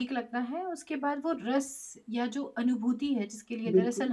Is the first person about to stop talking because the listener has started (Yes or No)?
No